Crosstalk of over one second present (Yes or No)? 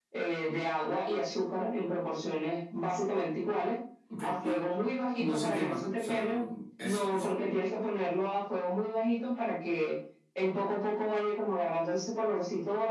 Yes